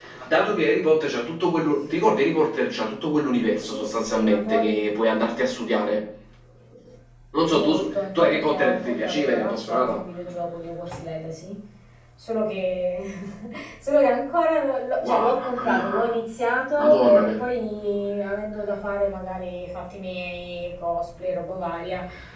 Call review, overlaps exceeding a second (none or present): present